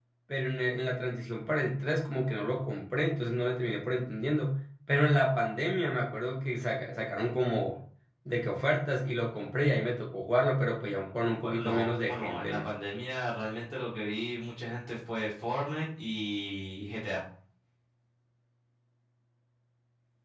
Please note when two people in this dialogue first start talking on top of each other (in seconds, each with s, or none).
11.4 s